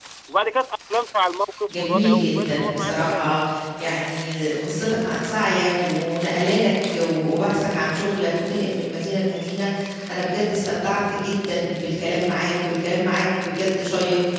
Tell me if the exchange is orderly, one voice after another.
No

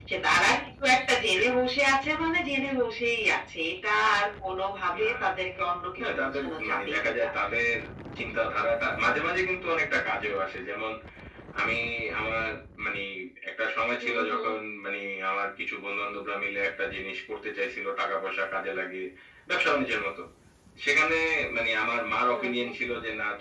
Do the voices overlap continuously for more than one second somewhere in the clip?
Yes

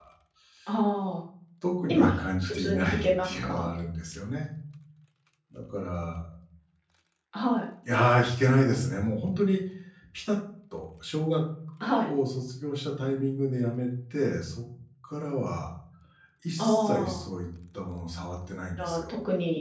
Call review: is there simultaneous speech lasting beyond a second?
Yes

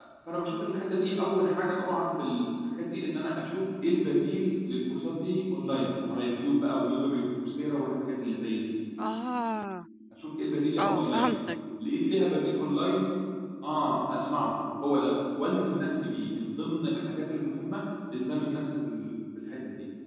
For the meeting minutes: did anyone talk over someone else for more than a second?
No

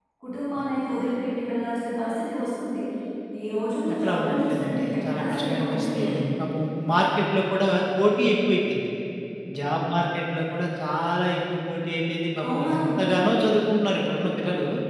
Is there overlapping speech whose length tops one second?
Yes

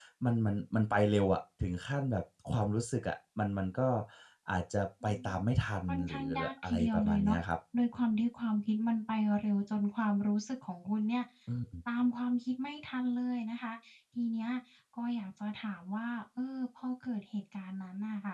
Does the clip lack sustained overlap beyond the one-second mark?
No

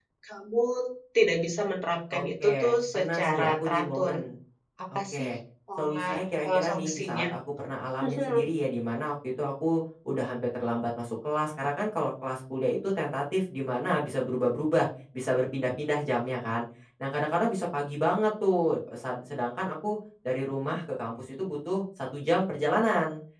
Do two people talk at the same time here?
Yes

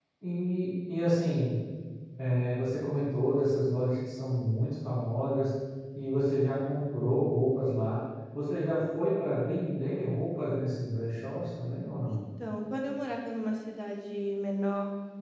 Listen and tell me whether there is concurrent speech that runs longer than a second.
No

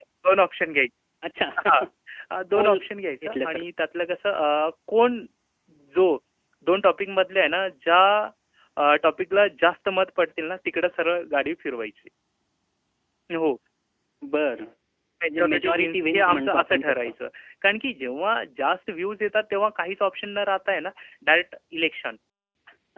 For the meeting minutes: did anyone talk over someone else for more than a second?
Yes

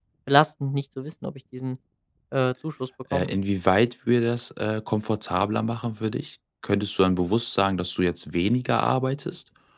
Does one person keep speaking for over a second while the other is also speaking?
No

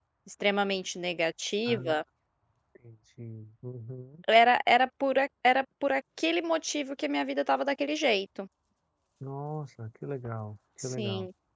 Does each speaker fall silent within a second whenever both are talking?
Yes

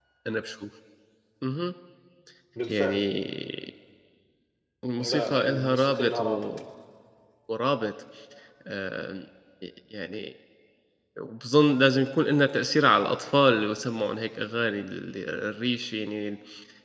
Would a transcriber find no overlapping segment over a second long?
No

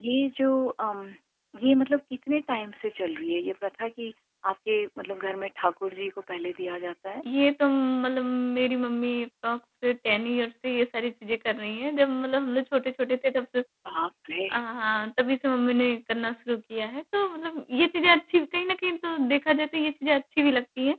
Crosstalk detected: No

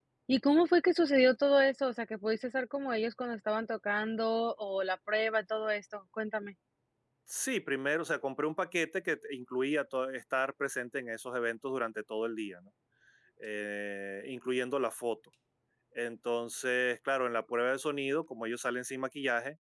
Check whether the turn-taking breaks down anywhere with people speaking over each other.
No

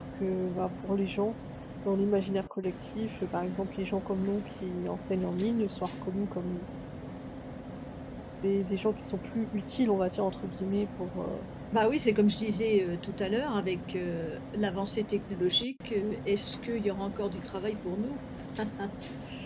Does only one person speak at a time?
Yes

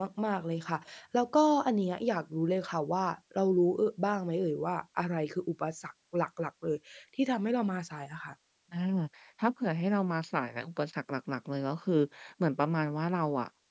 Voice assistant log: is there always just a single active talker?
Yes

